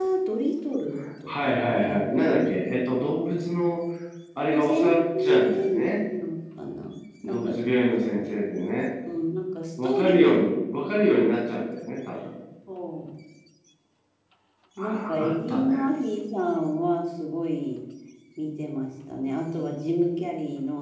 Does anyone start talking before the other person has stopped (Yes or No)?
Yes